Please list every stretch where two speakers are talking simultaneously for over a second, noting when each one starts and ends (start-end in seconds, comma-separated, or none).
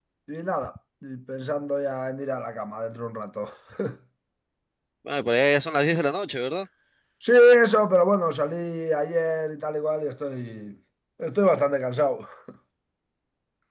none